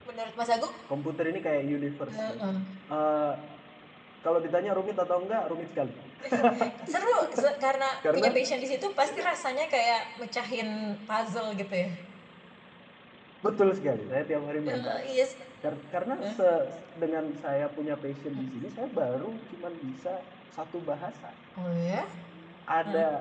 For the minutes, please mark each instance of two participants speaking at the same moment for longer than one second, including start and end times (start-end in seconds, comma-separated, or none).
none